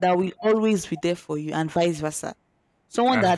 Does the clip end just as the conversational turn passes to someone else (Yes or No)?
No